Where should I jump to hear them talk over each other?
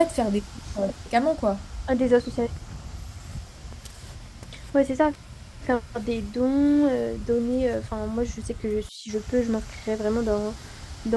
none

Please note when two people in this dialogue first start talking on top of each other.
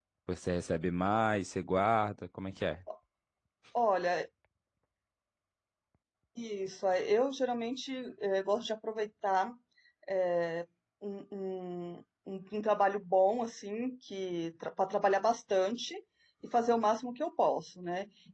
none

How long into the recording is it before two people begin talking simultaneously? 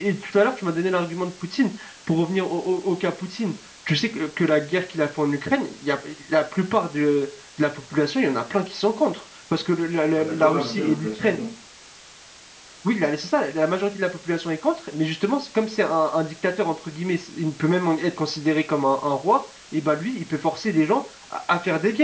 10.2 s

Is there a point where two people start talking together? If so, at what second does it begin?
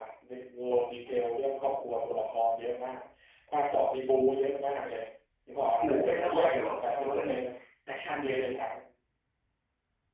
5.8 s

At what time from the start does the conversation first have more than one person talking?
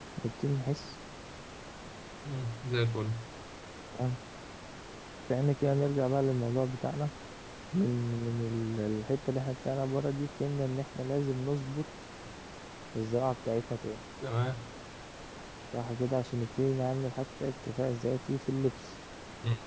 none

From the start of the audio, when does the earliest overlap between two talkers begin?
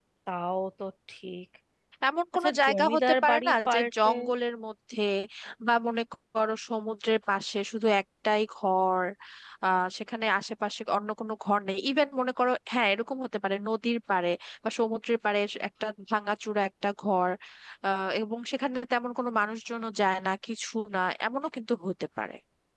2.4 s

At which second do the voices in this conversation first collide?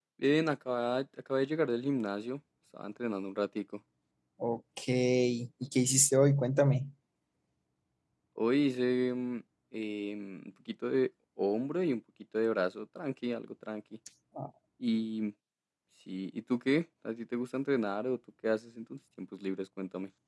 none

